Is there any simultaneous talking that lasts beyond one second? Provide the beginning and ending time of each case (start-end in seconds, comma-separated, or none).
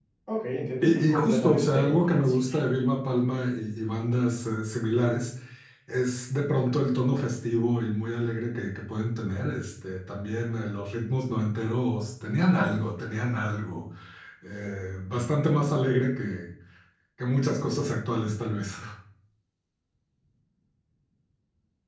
0.8-2.5